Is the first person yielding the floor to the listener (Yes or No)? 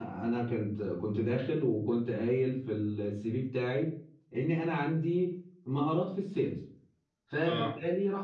No